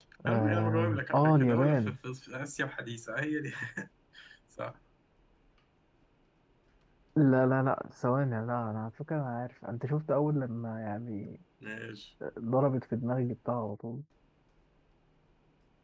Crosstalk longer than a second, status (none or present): present